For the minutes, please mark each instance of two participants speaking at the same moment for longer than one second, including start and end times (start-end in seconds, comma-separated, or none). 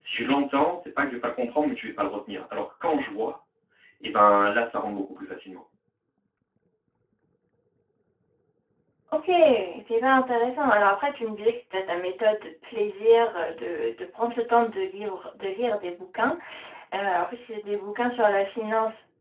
none